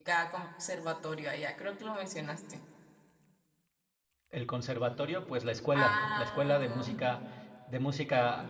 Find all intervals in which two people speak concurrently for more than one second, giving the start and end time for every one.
5.7-6.9

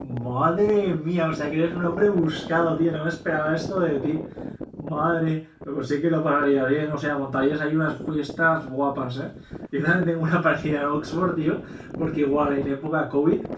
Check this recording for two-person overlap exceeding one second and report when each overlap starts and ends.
none

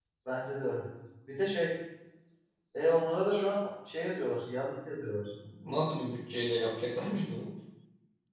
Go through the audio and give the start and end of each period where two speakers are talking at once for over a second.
none

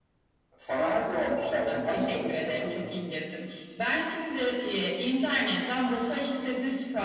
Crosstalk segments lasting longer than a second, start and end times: 1.7-3.0

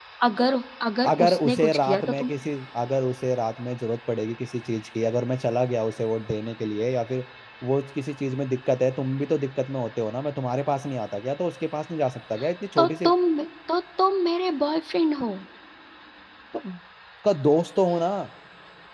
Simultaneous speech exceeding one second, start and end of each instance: 1.1-2.3

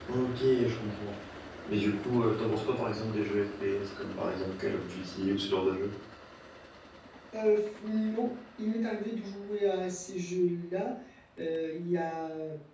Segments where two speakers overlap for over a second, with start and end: none

